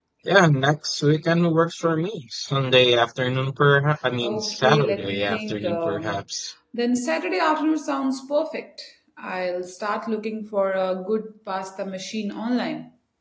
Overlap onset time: 4.2 s

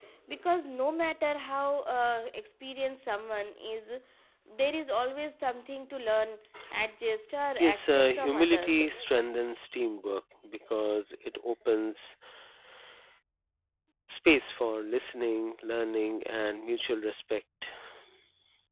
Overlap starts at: 7.6 s

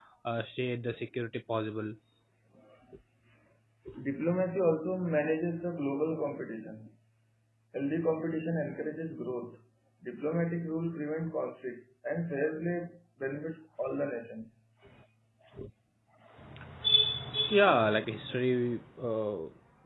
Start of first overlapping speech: none

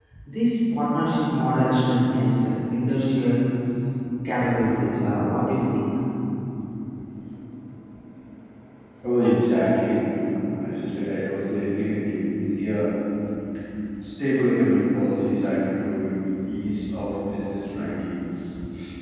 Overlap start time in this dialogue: none

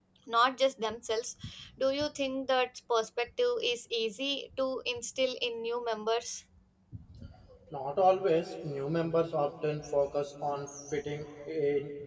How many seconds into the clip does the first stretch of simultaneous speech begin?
none

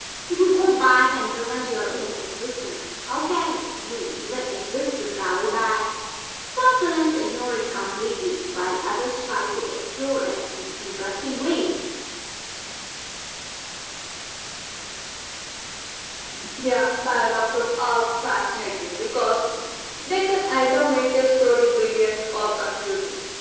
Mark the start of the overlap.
none

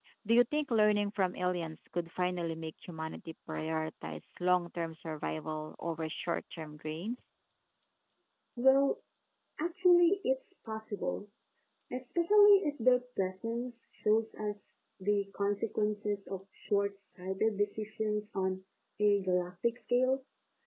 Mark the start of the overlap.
none

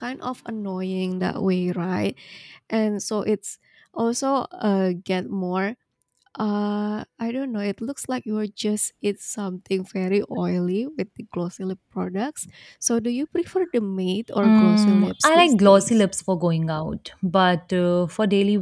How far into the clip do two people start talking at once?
14.4 s

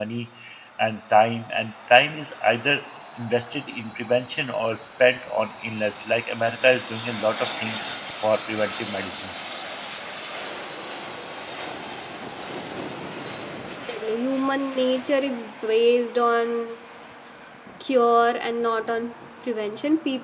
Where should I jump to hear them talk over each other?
none

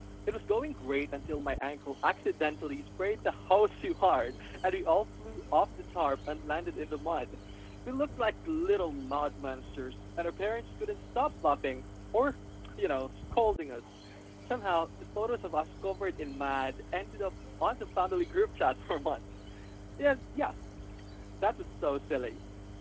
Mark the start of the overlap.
none

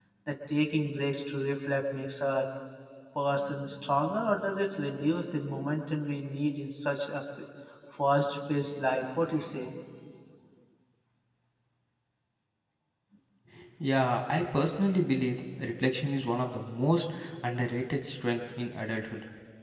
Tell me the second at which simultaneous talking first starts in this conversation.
none

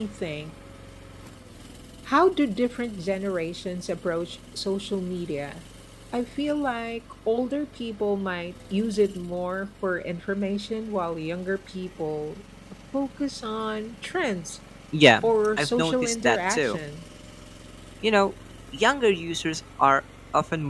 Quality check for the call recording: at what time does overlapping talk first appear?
15.2 s

